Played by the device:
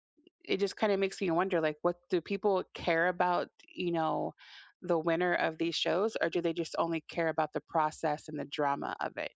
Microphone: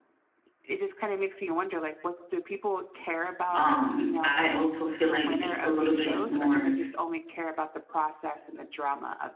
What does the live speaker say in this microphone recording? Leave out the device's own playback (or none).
Um, I also feel like it's a little bit more